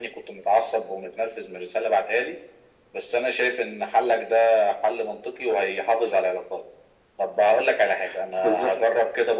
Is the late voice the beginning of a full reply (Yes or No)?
No